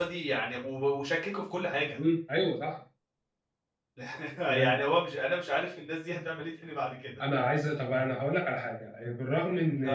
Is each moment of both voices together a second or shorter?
Yes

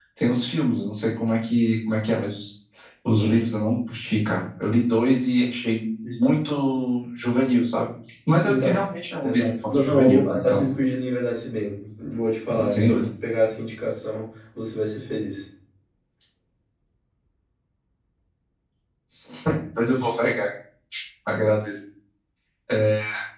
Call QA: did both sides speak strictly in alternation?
No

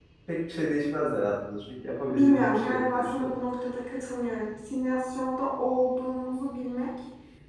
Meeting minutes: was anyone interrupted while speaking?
Yes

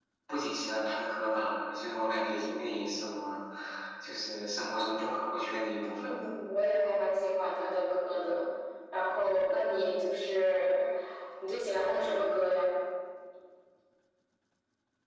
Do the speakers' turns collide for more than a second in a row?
No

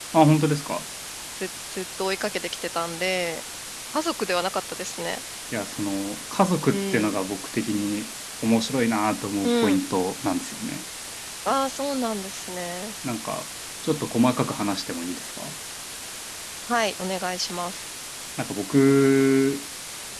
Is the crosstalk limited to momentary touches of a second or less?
Yes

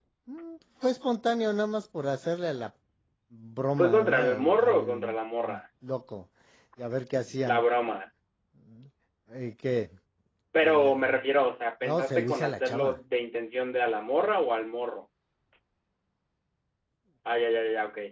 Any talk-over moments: Yes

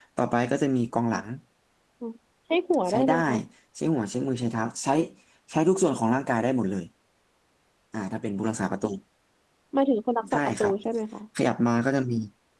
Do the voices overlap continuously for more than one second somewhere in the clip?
No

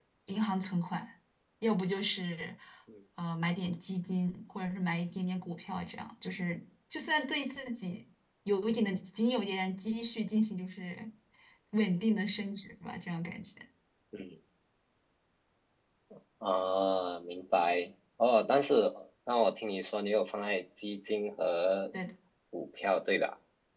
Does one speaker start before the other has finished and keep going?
No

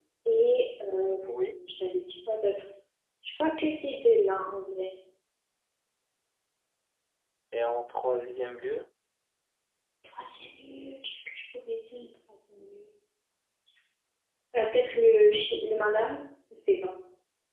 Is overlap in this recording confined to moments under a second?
Yes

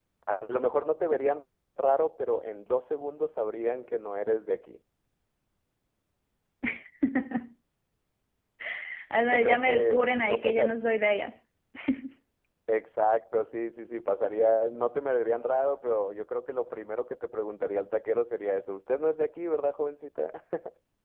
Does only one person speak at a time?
No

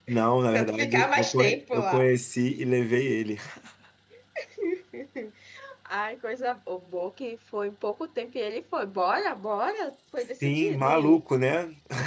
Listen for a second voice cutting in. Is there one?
Yes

